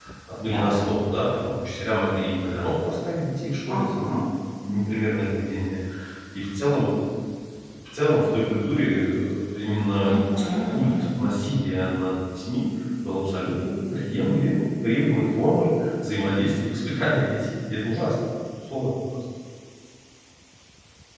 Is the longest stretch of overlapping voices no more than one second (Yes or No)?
Yes